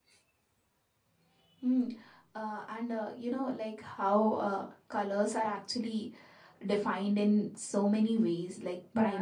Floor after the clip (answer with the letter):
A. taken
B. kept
B